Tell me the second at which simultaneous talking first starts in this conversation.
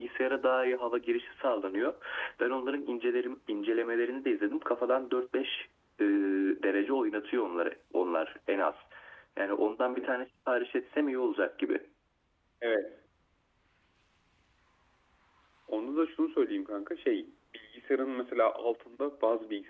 none

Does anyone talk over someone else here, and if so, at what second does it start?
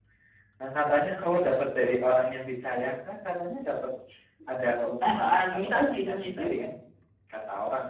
5.0 s

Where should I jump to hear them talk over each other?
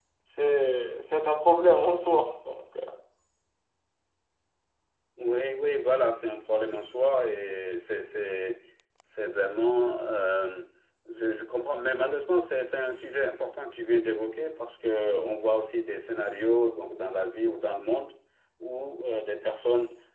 none

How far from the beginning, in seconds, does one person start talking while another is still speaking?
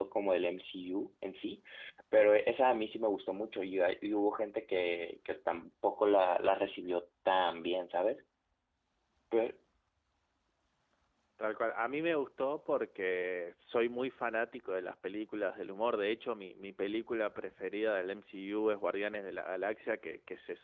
none

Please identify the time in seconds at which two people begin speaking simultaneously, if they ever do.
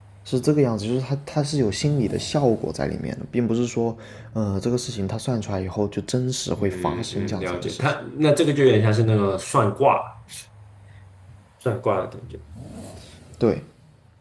6.6 s

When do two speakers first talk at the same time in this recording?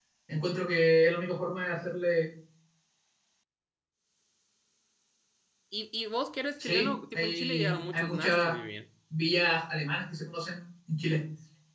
6.6 s

